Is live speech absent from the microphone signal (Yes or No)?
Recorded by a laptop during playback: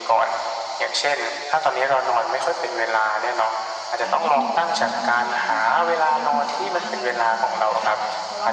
No